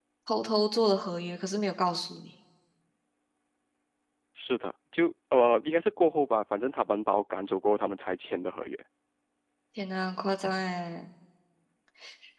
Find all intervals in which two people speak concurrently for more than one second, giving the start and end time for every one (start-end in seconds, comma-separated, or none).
none